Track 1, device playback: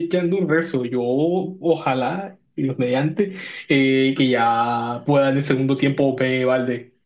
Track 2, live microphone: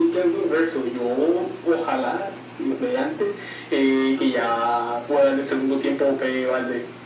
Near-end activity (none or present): none